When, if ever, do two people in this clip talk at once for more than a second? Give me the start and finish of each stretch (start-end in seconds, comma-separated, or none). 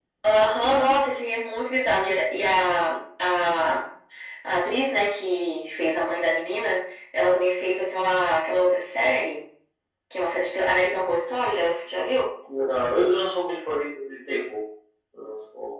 none